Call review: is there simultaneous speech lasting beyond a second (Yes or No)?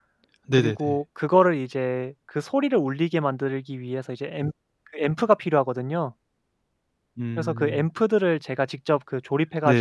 No